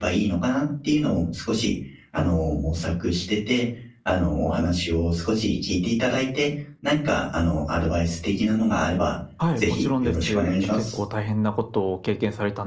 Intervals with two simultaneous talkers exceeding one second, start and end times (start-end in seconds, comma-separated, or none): 9.6-11.0